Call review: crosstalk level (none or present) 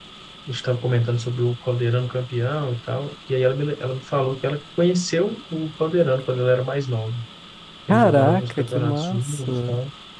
present